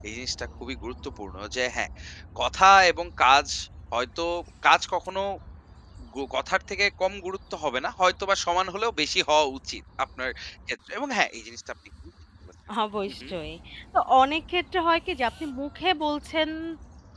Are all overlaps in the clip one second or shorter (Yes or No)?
Yes